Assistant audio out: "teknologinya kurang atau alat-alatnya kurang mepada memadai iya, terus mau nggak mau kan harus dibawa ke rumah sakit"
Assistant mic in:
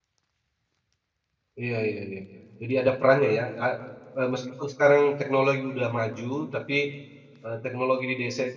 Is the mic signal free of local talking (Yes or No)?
No